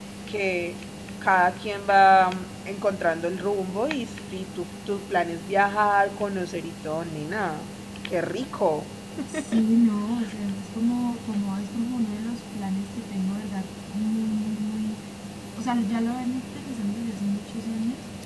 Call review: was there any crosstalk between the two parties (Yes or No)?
No